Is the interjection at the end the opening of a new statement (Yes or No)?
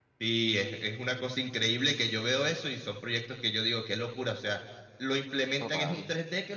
No